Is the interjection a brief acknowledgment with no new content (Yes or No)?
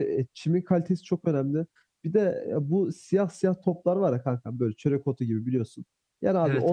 Yes